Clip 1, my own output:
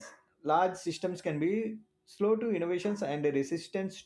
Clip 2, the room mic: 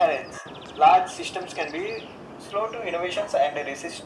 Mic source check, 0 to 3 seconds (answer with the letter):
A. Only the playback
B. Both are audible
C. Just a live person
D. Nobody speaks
A